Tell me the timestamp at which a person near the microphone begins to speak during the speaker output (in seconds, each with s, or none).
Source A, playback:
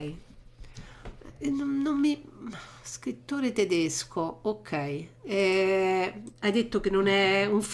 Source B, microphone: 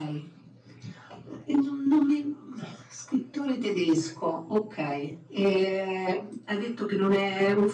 none